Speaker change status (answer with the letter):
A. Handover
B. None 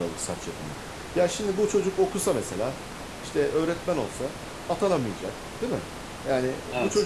B